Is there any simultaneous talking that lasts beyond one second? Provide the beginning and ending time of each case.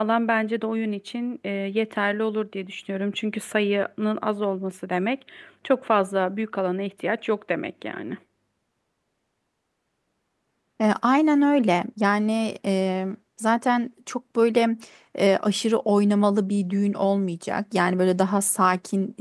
none

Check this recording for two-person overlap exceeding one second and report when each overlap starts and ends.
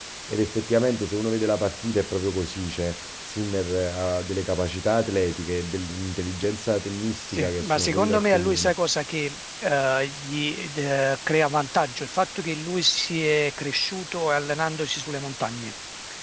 7.3-8.7

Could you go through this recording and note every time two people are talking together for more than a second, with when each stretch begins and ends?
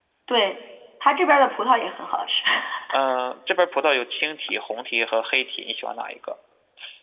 none

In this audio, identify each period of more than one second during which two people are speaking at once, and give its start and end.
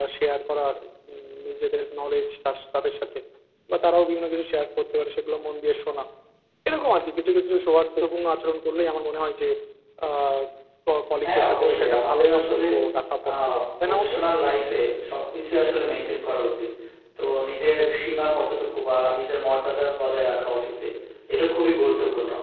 11.2-12.6

